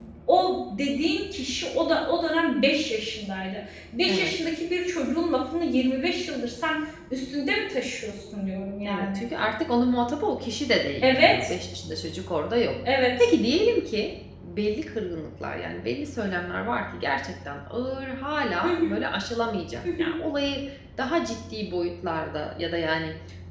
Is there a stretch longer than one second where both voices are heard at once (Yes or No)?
No